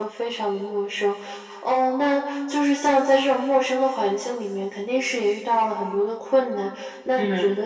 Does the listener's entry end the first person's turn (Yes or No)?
No